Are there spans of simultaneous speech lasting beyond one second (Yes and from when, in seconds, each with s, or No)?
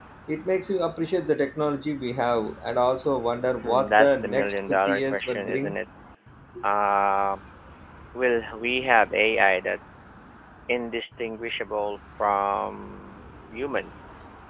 Yes, from 3.6 s